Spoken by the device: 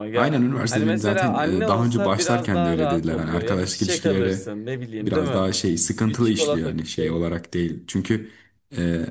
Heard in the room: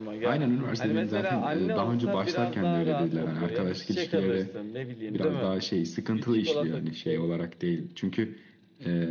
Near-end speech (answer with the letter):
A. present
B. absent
B